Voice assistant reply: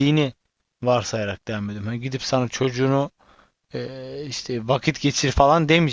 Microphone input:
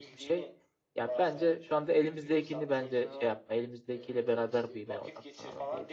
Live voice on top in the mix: Yes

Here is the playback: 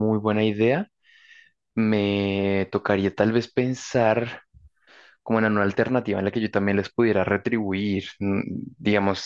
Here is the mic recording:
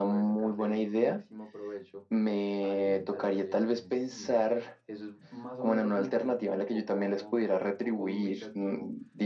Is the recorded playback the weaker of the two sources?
No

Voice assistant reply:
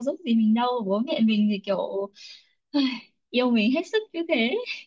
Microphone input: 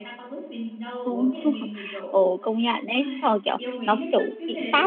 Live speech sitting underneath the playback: No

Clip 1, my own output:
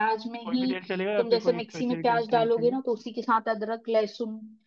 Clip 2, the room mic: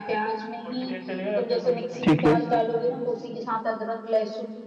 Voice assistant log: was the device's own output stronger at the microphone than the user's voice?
No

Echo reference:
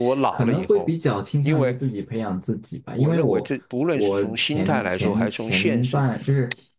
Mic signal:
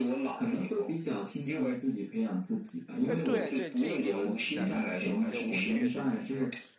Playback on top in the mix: Yes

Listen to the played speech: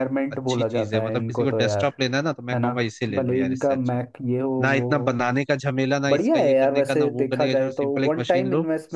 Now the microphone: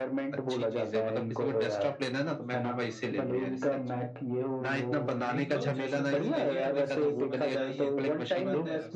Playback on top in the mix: Yes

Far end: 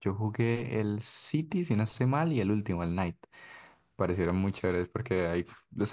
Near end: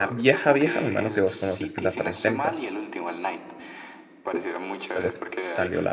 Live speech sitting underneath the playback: No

